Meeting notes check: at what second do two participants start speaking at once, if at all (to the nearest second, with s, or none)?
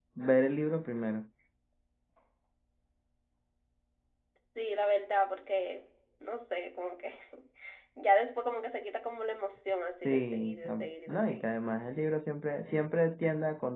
10 s